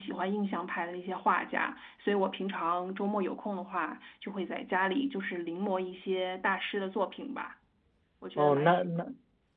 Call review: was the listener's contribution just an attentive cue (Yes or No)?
No